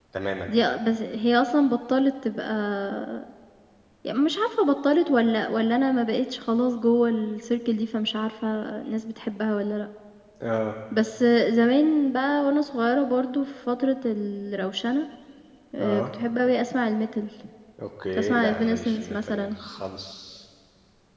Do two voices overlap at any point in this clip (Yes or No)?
Yes